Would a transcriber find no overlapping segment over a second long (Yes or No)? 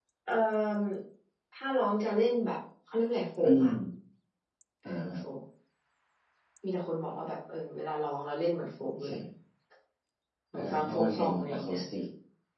No